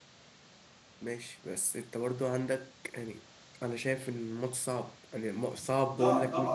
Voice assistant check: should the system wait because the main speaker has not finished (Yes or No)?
No